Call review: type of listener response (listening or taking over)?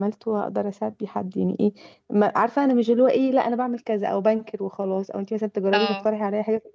listening